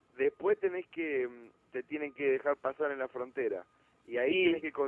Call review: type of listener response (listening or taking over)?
listening